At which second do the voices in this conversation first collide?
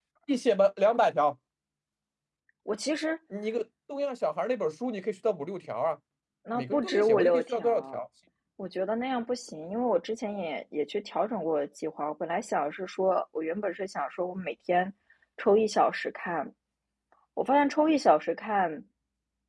6.5 s

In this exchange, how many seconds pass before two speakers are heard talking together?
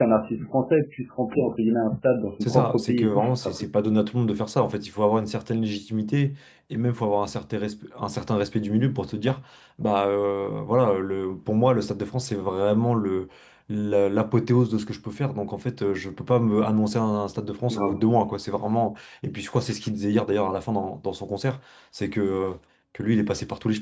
2.4 s

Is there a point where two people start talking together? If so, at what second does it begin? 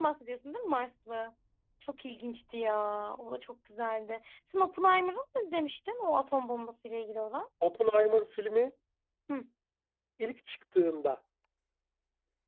none

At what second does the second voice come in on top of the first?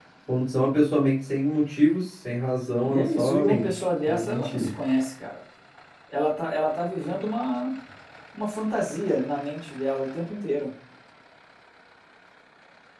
2.8 s

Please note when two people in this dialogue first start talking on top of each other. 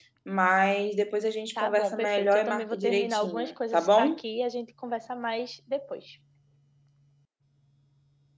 1.6 s

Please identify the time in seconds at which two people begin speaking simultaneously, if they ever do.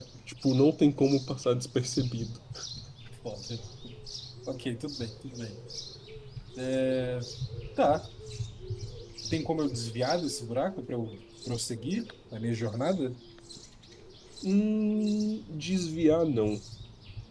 none

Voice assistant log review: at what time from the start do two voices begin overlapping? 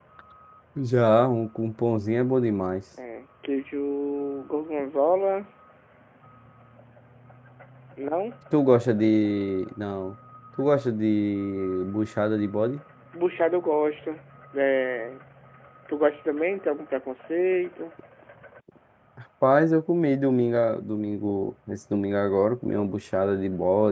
none

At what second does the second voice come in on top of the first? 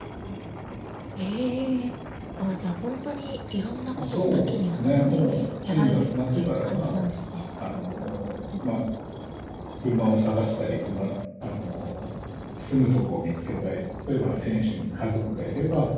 4.0 s

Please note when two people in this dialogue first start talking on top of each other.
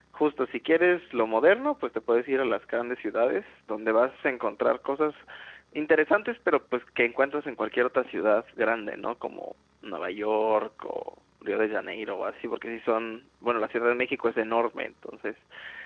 none

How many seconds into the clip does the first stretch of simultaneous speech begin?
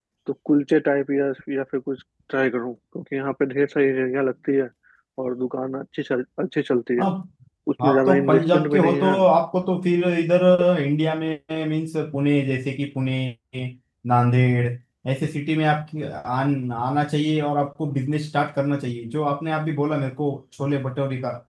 7.9 s

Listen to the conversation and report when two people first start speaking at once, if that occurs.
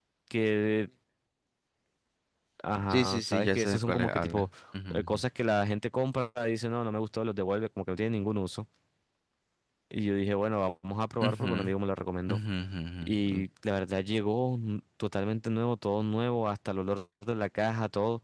2.9 s

